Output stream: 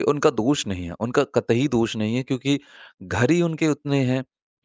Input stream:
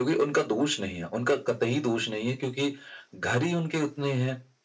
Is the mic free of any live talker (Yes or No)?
Yes